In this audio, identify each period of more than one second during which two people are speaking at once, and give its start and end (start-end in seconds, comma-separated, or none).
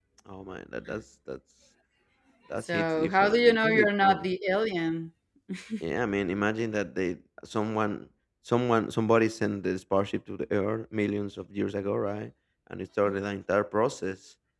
2.6-4.2